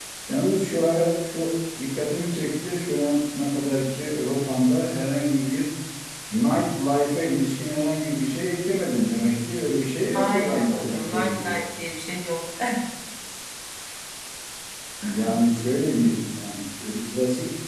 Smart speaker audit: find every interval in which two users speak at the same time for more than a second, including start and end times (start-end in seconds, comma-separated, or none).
10.1-11.6